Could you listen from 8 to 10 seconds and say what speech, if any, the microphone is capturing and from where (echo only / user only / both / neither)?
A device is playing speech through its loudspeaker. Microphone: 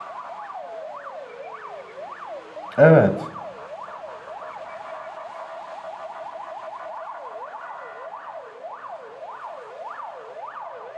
neither